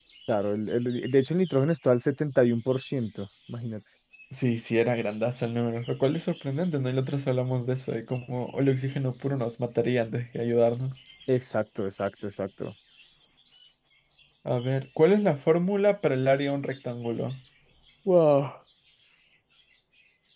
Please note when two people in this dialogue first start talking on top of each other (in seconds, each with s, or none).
none